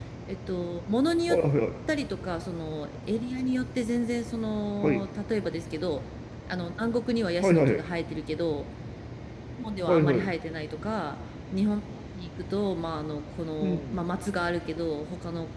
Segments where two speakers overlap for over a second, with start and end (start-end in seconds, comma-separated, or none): none